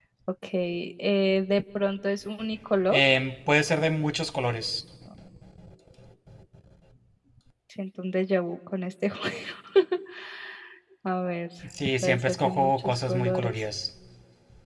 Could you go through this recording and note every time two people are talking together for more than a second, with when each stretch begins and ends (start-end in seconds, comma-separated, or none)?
12.0-13.5